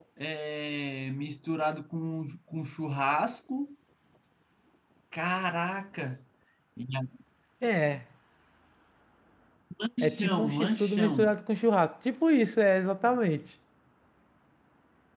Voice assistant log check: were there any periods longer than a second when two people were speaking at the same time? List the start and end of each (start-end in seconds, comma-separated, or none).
10.0-11.3